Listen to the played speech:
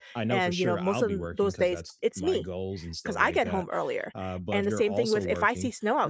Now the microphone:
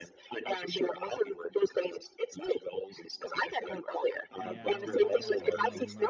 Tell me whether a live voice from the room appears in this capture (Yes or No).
Yes